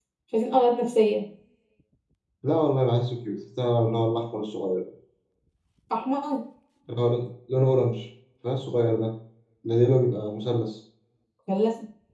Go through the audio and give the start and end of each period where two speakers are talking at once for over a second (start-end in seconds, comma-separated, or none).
none